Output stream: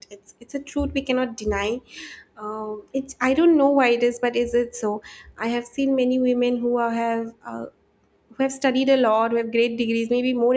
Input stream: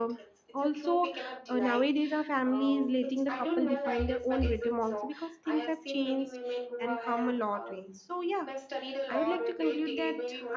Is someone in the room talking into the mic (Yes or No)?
Yes